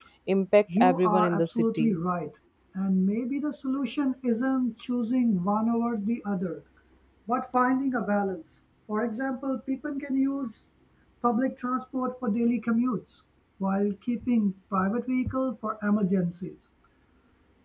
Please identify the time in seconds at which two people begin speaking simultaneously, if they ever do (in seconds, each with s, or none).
0.8 s